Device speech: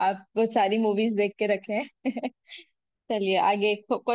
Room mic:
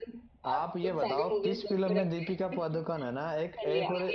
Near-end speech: present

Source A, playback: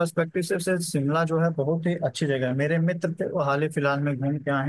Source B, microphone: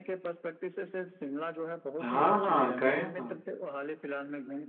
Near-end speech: present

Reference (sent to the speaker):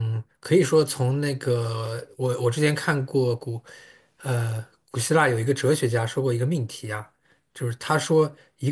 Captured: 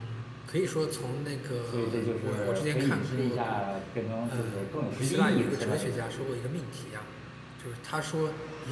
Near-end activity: present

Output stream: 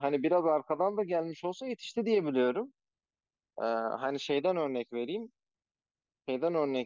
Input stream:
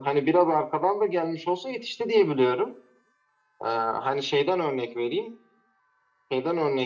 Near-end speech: none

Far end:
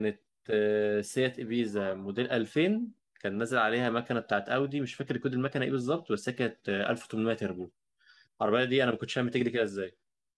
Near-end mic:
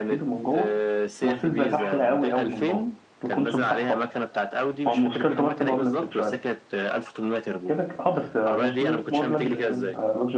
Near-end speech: present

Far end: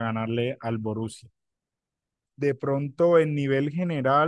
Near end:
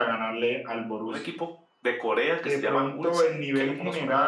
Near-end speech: present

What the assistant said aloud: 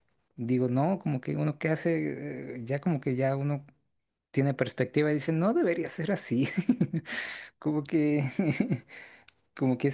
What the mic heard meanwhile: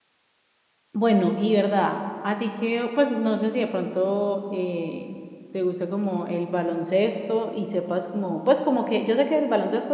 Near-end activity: present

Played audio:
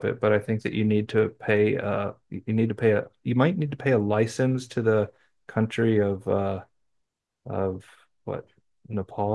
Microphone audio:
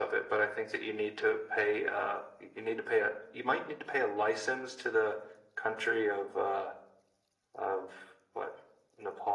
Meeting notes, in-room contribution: none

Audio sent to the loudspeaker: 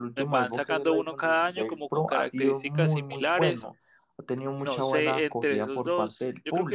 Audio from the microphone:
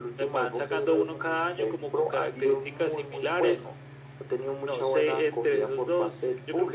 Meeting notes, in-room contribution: none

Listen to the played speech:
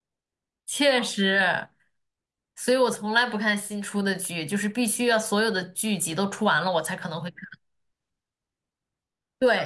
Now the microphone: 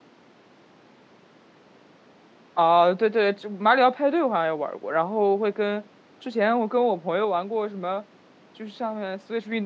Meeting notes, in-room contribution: present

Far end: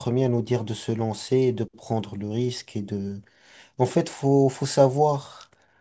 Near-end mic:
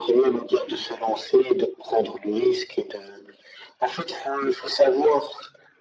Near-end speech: none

